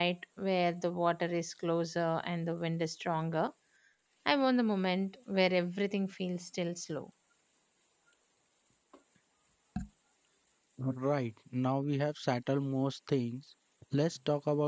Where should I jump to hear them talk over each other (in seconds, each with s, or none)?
none